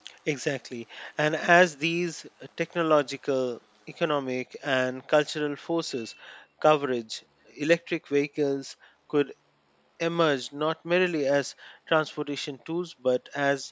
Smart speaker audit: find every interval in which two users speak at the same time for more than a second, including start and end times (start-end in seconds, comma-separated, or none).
none